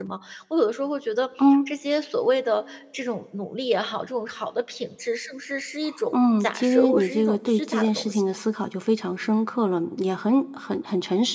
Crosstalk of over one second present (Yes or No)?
Yes